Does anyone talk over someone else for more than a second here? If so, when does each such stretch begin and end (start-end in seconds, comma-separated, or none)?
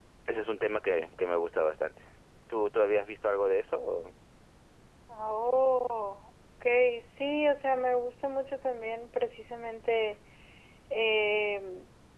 none